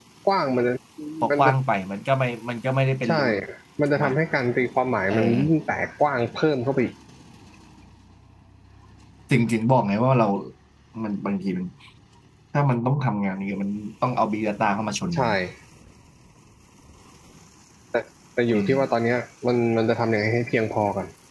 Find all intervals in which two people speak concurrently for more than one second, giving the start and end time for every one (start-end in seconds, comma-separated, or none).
none